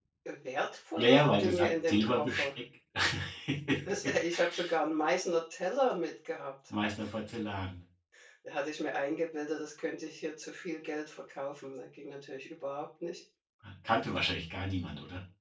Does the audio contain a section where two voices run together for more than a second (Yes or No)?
Yes